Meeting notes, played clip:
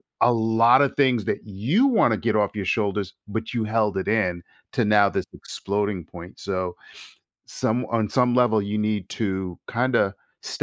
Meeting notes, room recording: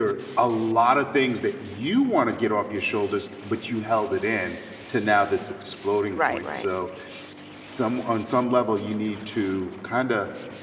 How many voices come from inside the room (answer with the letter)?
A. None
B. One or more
B